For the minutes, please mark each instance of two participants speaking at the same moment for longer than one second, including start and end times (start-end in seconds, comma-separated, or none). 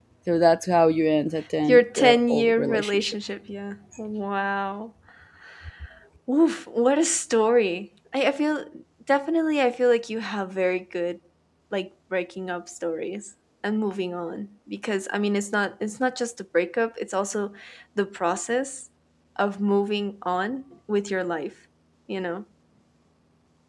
1.7-3.1